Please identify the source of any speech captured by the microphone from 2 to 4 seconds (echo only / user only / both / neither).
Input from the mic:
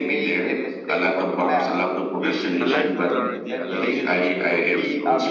both